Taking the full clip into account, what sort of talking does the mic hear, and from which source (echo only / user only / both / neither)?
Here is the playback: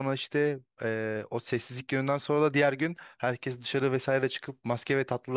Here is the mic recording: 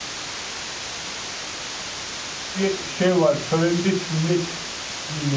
user only